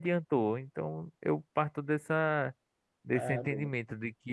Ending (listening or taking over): listening